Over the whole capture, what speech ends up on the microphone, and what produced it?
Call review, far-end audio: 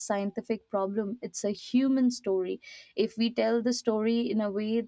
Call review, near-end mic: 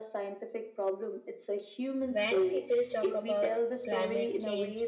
both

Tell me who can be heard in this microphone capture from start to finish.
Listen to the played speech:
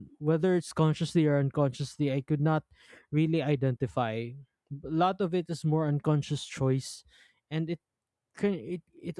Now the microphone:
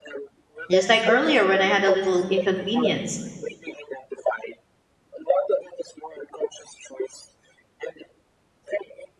both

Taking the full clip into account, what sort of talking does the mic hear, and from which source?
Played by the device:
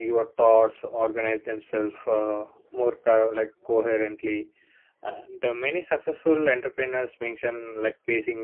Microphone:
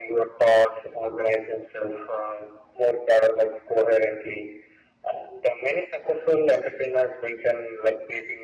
echo only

